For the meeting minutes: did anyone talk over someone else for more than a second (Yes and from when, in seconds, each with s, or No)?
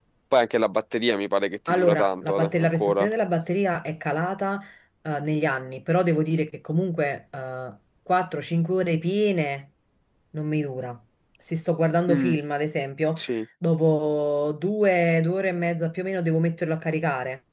Yes, from 1.7 s